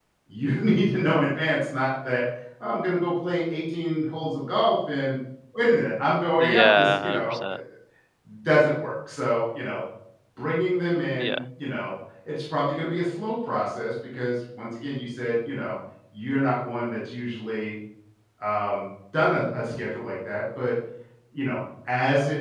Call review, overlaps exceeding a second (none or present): present